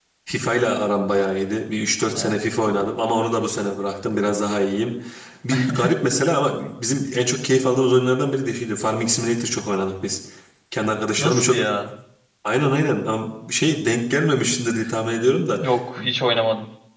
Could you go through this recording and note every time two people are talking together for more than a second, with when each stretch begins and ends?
none

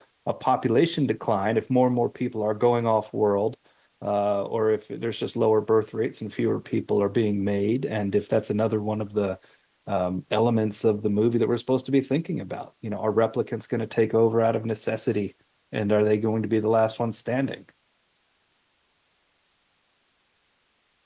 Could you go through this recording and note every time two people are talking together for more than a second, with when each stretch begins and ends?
none

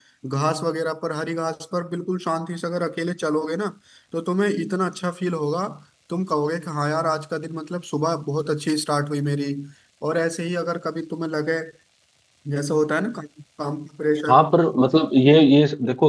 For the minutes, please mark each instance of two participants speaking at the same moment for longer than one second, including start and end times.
none

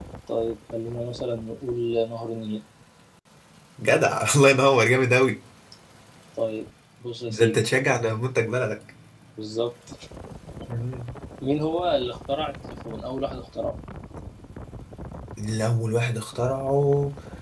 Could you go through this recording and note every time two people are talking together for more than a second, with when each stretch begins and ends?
none

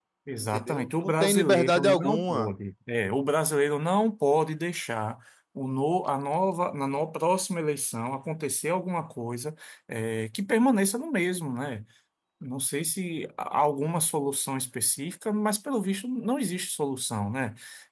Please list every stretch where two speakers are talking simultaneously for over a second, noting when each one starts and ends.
0.5-2.5

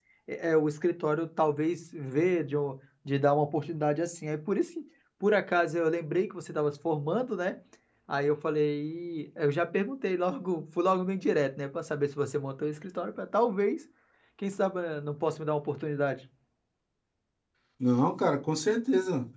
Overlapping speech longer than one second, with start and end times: none

